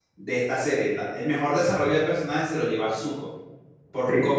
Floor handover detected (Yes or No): No